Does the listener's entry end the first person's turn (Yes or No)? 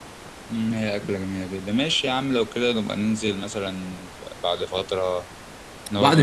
Yes